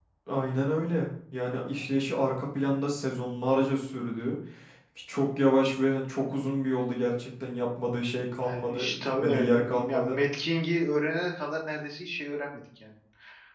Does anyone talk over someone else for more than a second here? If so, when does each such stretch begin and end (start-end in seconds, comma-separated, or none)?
8.4-10.2